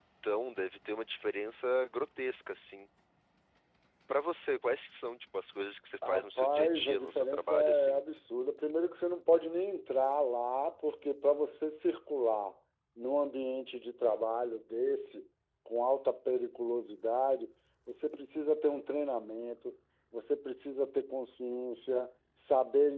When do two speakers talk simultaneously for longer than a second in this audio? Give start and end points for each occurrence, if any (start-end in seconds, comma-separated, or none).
6.1-8.0